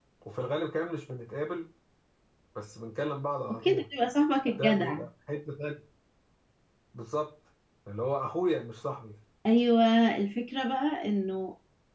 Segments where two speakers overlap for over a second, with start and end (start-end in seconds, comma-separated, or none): none